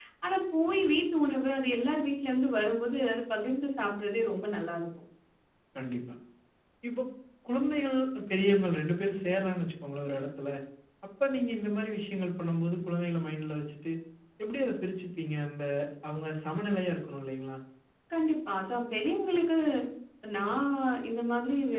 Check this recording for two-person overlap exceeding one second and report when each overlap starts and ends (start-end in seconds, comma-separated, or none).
none